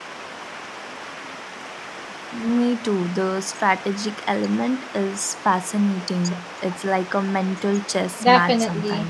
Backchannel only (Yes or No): No